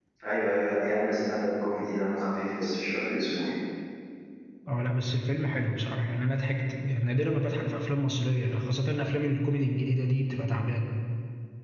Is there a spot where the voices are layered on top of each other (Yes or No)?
No